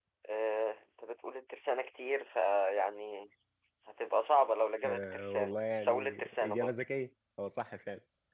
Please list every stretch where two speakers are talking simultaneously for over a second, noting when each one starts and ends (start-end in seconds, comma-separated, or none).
4.8-6.7